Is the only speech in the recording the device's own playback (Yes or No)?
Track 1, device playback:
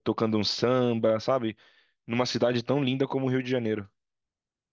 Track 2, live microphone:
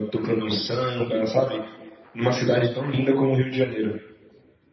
Yes